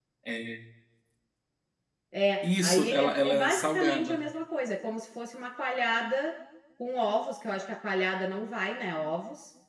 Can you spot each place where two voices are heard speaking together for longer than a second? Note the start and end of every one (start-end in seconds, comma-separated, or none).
2.4-4.2